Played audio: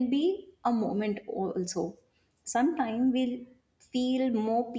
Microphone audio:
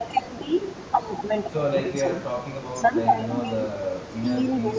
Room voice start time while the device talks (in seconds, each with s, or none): 1.4 s